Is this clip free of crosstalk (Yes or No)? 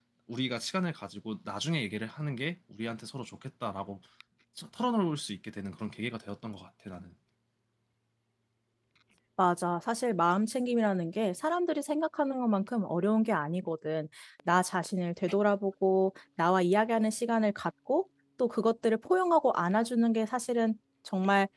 Yes